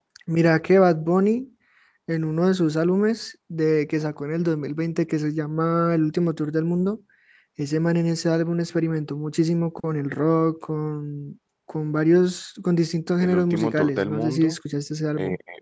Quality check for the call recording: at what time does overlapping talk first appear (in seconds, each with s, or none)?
13.2 s